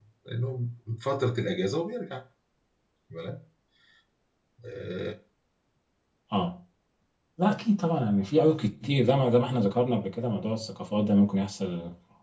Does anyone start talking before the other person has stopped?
No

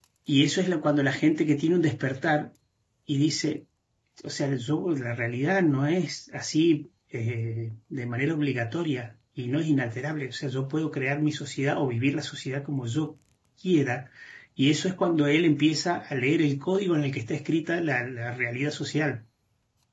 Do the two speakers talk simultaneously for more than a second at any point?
No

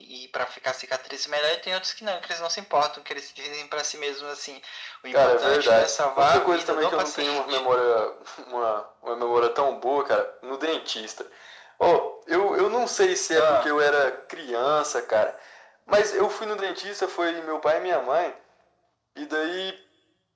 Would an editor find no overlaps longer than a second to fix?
No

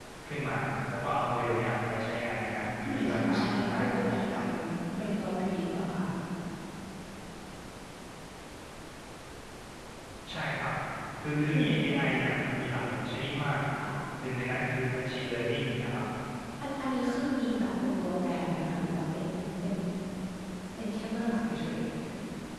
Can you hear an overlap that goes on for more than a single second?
Yes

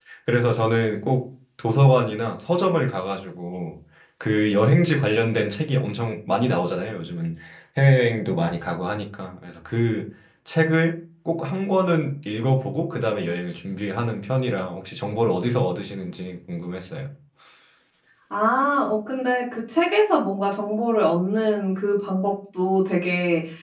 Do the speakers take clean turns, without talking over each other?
Yes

